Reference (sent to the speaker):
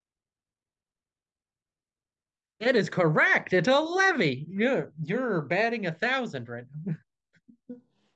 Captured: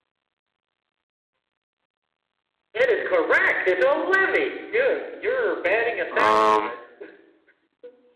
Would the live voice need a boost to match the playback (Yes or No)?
No